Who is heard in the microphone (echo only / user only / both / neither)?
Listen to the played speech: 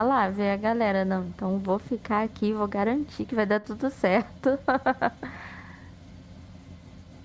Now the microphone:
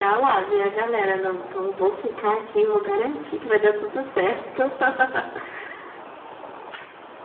echo only